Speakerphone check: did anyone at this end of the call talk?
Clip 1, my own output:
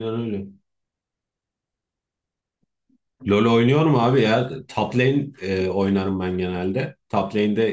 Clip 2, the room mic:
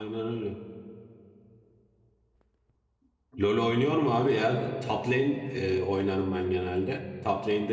No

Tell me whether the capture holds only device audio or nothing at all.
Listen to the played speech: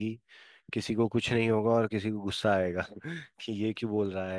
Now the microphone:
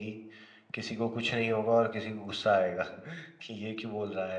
Yes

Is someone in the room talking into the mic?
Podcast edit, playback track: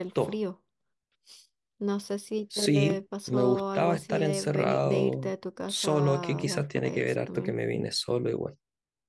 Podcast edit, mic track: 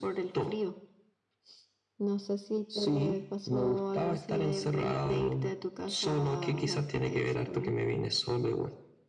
No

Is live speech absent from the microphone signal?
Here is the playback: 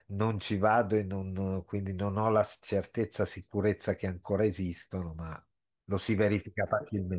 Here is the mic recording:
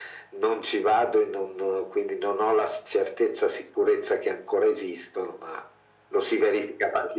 Yes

